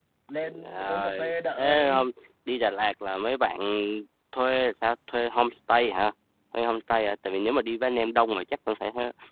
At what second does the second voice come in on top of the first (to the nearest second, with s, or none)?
1 s